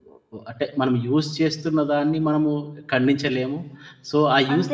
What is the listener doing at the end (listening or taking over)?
listening